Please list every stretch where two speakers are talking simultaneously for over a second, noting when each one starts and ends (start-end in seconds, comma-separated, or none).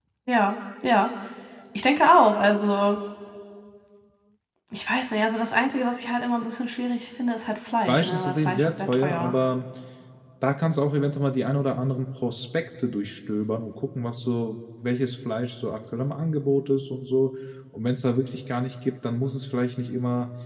7.9-9.3